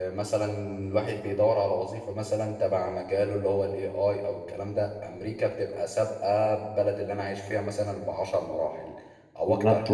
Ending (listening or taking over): taking over